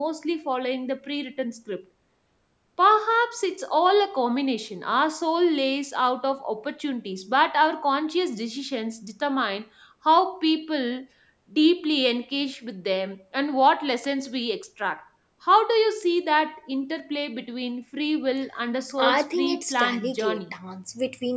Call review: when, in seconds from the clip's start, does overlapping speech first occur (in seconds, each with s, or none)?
19.0 s